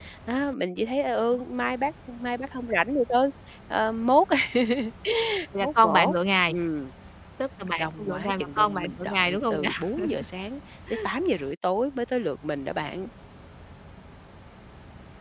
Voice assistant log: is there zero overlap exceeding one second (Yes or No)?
No